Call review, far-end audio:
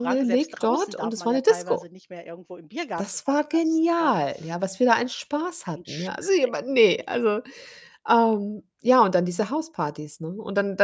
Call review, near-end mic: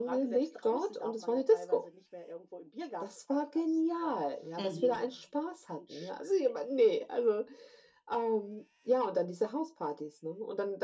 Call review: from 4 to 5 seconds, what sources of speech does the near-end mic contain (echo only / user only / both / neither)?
both